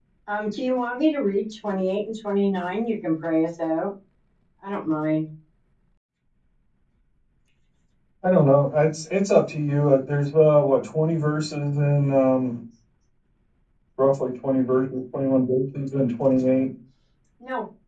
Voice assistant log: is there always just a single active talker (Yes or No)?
Yes